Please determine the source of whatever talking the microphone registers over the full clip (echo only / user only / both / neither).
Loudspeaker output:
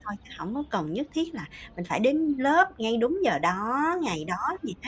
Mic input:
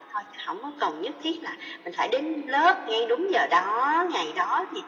echo only